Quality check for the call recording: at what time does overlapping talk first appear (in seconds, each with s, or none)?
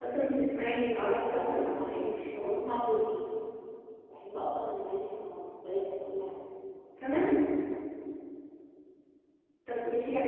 1.0 s